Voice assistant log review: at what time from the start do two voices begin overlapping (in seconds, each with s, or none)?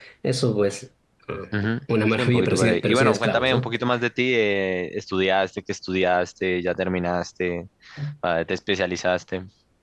2.1 s